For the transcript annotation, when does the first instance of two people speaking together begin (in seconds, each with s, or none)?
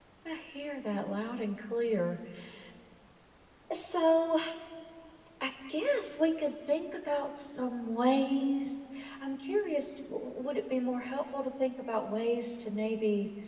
none